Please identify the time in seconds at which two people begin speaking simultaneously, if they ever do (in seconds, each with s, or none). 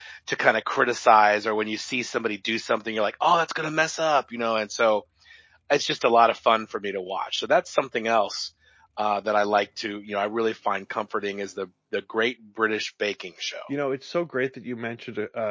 none